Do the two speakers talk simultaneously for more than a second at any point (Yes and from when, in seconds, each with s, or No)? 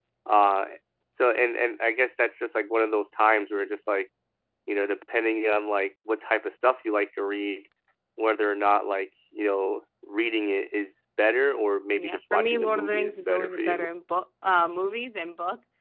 Yes, from 11.9 s